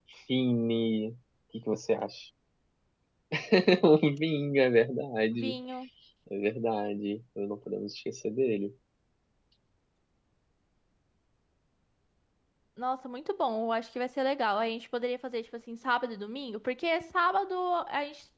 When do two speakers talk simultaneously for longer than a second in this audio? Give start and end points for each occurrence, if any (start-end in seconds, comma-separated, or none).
none